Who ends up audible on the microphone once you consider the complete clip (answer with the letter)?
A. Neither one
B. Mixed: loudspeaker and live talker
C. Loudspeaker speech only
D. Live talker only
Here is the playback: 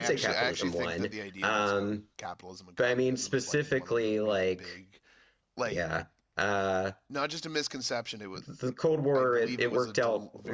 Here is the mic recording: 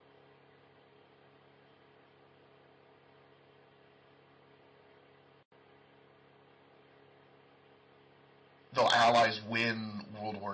D